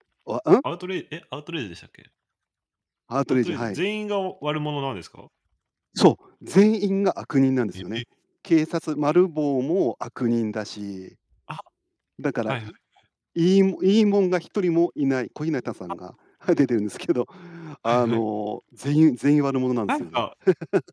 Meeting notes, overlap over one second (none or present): none